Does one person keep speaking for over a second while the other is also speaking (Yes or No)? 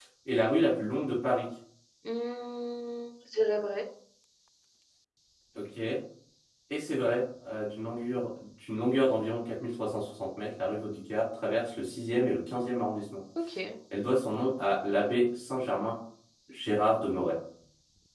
No